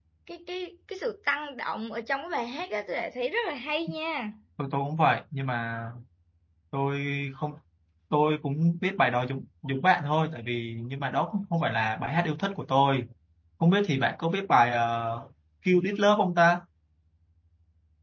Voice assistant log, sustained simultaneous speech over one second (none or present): none